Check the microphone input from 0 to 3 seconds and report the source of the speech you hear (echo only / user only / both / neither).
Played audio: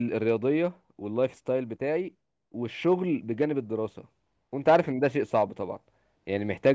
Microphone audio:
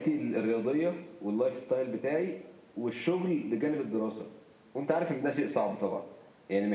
echo only